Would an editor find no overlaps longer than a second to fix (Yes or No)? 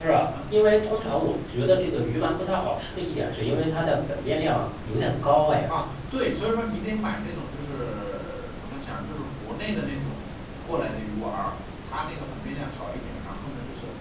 Yes